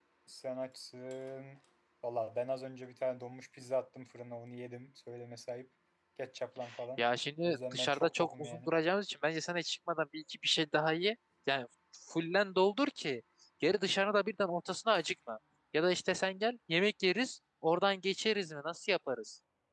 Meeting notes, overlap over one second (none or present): present